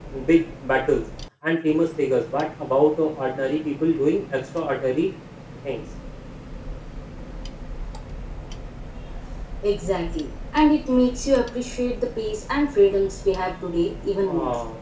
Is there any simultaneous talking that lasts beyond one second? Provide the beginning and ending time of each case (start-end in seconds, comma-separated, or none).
none